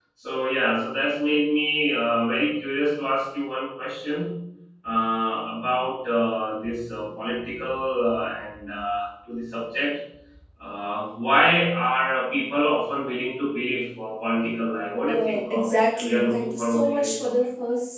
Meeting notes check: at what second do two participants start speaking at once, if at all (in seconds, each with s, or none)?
15.1 s